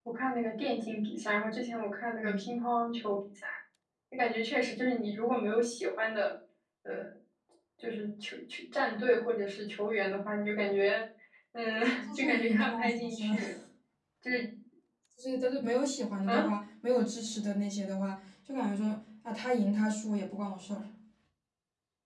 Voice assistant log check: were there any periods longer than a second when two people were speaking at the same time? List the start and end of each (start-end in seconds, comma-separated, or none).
12.1-13.4